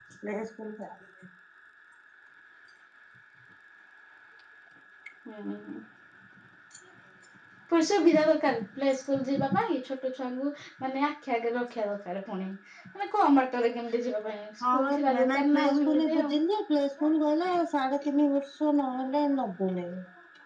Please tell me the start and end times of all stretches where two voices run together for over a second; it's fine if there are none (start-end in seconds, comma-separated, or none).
14.7-16.3